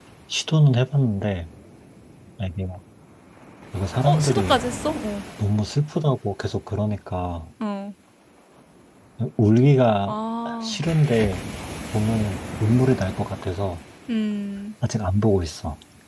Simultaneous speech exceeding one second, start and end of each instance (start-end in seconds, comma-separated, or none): none